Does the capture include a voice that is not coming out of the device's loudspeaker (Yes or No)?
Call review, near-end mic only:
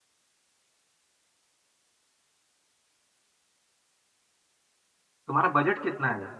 Yes